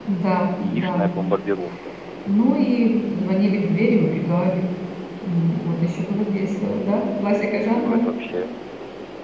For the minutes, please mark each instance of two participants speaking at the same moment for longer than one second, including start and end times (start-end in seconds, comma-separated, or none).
none